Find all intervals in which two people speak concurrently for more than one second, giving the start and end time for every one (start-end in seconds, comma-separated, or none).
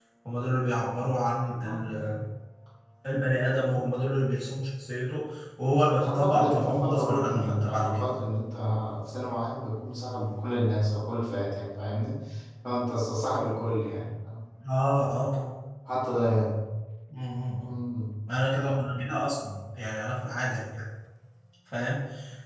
6.1-8.1